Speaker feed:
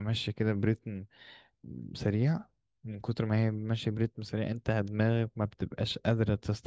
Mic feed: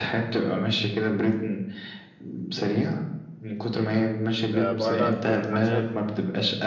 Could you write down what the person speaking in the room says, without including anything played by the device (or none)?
آه، بره تكون أحسن